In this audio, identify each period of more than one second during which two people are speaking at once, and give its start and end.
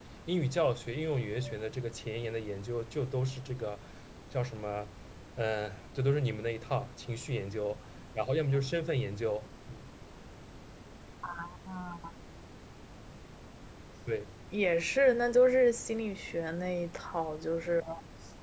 none

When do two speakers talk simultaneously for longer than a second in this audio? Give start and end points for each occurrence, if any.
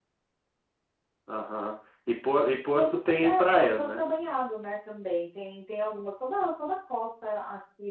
2.7-4.0

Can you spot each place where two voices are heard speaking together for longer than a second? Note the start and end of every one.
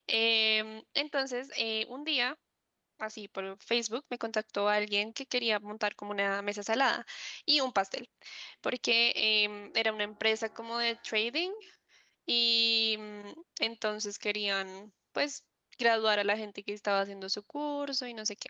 none

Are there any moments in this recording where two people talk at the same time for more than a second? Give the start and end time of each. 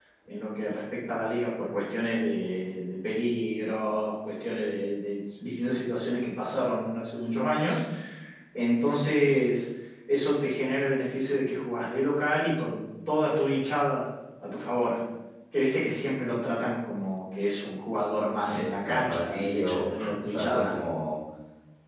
18.5-20.8

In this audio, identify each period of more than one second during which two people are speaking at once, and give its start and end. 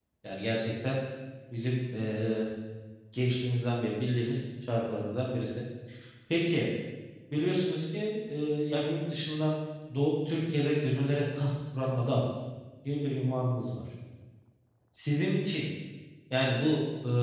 none

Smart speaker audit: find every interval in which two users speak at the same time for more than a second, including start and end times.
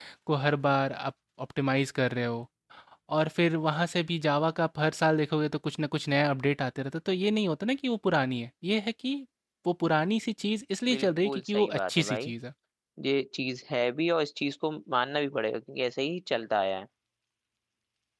10.9-12.3

